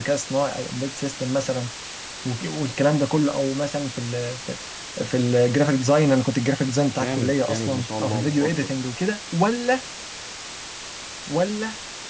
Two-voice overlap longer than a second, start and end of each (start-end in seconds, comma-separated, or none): 6.9-8.5